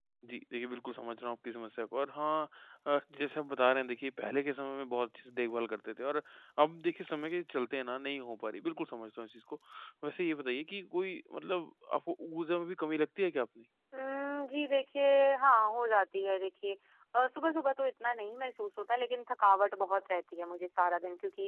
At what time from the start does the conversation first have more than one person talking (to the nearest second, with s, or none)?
none